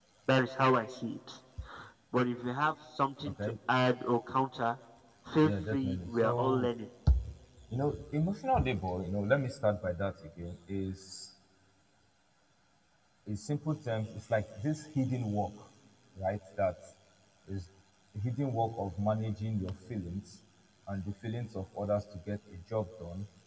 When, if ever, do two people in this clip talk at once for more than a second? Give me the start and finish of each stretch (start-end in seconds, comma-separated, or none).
5.4-6.7